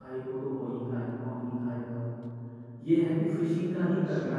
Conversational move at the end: listening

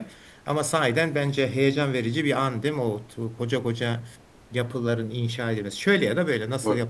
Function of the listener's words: taking over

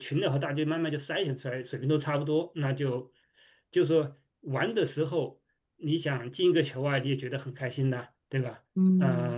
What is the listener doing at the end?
taking over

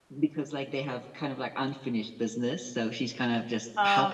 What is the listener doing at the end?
taking over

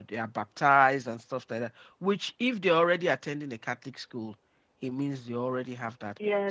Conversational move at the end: taking over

